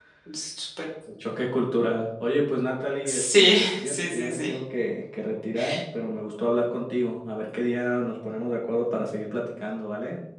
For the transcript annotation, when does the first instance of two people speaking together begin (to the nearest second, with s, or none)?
3 s